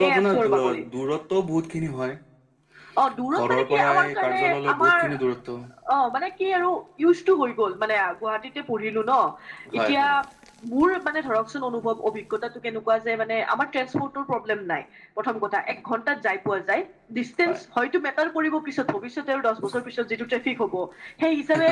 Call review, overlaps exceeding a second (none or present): present